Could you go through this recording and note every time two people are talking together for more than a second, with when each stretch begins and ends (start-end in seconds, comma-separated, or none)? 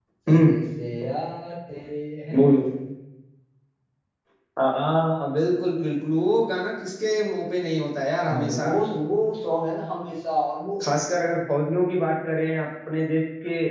none